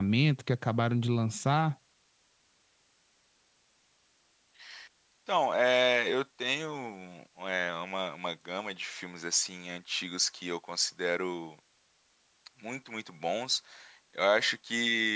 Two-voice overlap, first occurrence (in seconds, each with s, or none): none